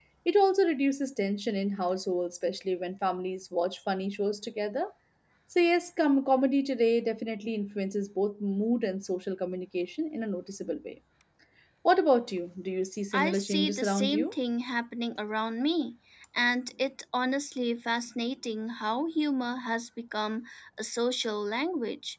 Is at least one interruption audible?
Yes, from 13.1 s

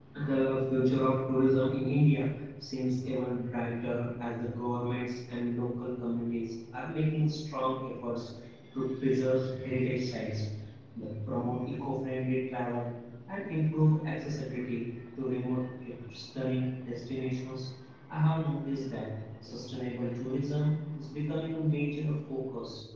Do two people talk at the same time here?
No

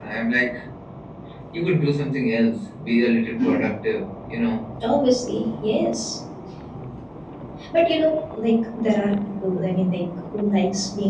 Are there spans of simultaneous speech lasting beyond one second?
No

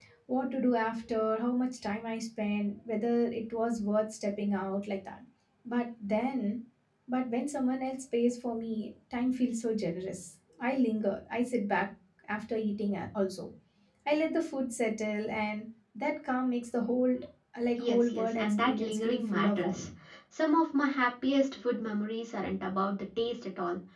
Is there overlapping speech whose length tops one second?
Yes, from 17.8 s

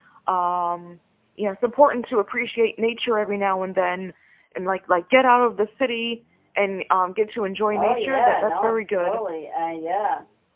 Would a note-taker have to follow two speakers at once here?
Yes, from 7.7 s

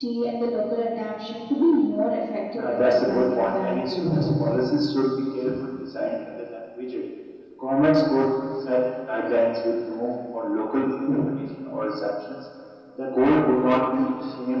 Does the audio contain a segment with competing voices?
Yes, from 2.5 s

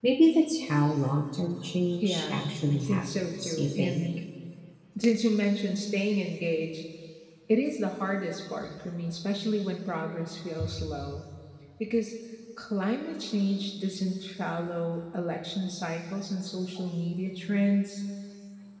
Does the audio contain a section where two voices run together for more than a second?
Yes, from 2.0 s

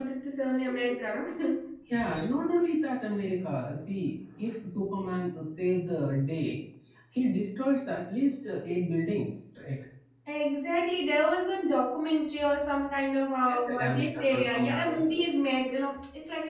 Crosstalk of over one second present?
Yes, from 13.5 s

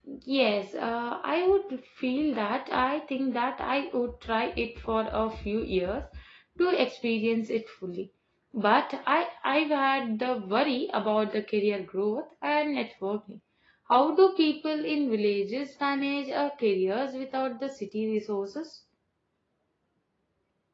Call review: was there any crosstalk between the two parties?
No

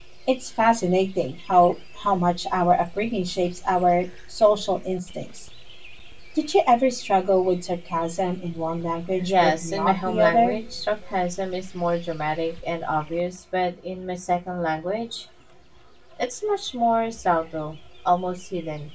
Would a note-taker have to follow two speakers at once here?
Yes, from 9.2 s

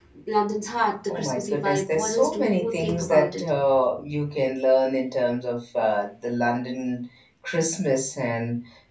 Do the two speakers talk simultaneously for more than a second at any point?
Yes, from 1.1 s

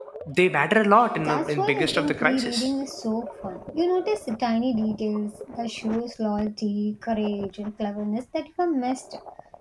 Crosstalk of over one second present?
Yes, from 1.2 s

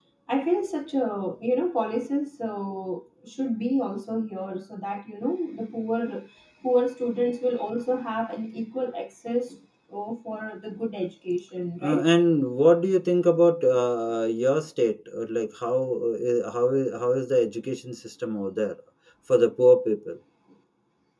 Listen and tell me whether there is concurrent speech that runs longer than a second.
No

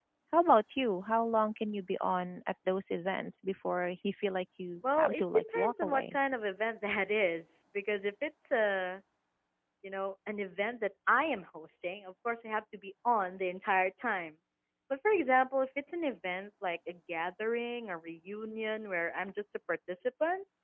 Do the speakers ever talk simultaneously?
Yes, from 4.8 s

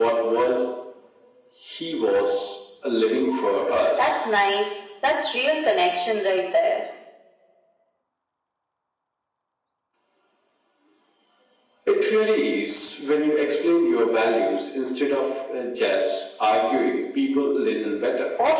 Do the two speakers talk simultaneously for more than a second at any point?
No

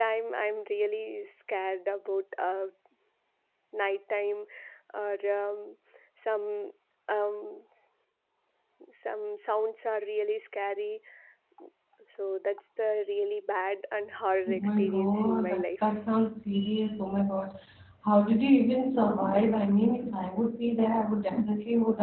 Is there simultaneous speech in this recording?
Yes, from 14.5 s

